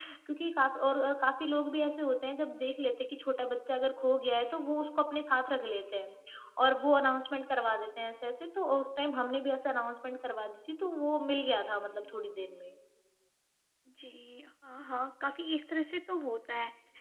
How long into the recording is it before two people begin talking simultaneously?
none

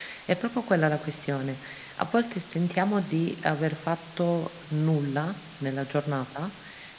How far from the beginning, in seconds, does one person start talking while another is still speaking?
none

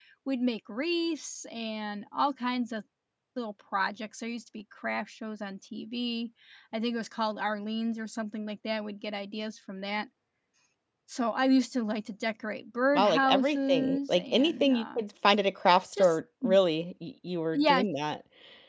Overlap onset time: 13 s

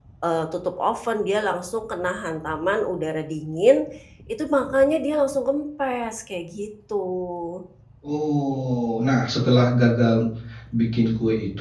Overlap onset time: none

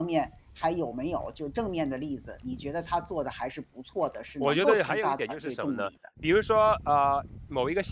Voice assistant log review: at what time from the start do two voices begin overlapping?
4 s

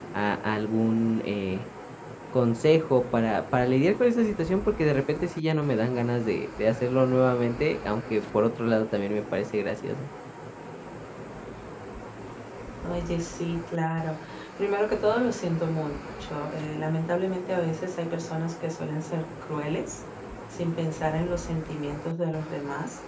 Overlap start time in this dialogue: none

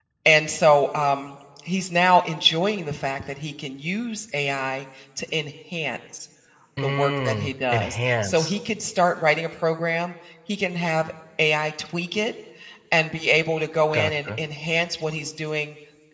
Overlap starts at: 7 s

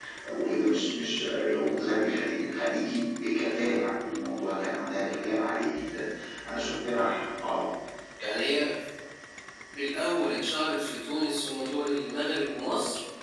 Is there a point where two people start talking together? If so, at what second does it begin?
none

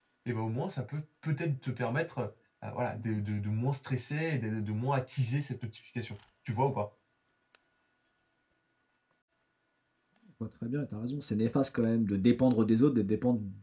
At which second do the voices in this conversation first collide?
none

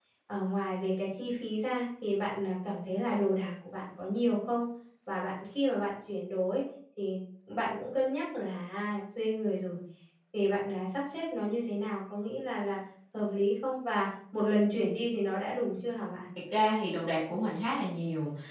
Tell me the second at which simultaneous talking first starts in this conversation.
none

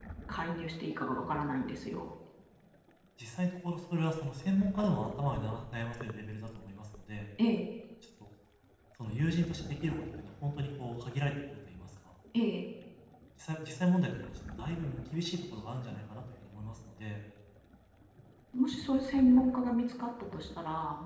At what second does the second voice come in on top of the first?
none

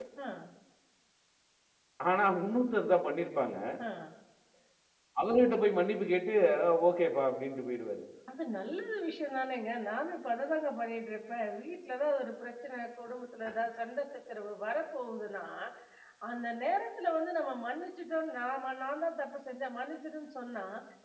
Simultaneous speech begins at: none

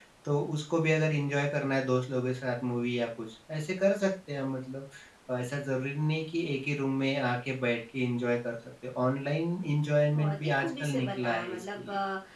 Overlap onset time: 10 s

